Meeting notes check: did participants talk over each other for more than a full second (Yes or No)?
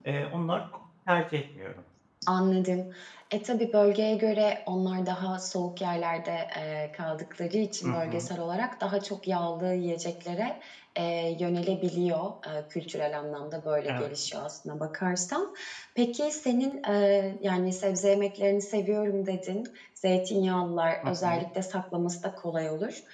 No